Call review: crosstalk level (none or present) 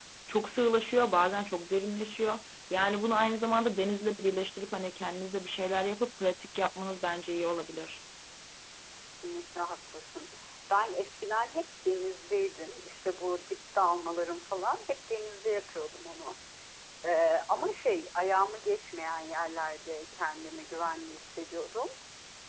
none